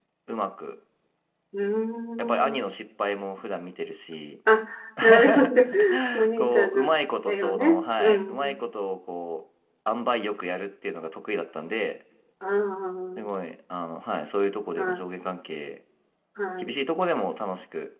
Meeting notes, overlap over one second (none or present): present